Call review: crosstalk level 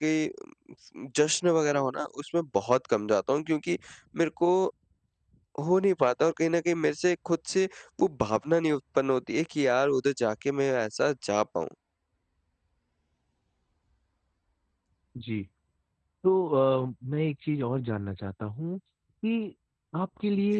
none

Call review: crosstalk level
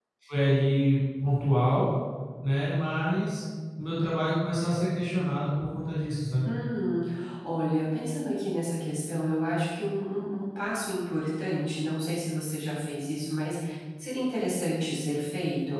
none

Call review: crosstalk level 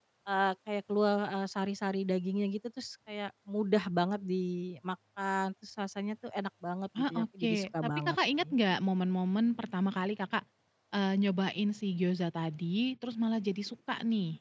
present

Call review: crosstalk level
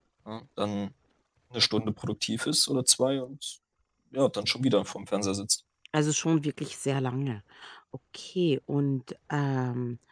none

